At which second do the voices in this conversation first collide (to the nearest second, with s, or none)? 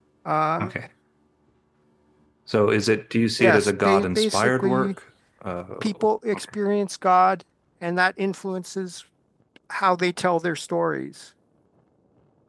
3 s